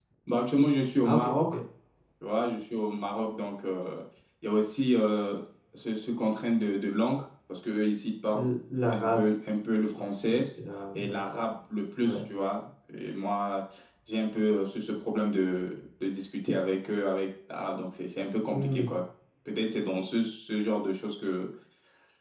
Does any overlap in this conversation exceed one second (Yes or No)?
No